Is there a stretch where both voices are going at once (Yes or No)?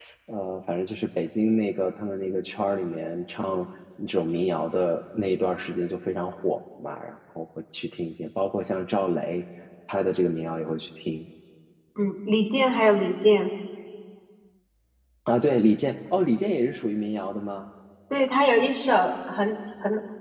No